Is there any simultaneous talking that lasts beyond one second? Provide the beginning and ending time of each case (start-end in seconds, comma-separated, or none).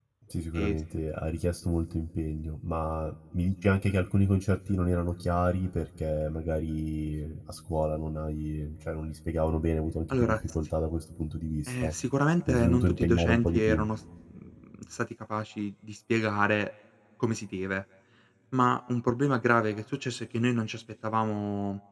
12.5-13.8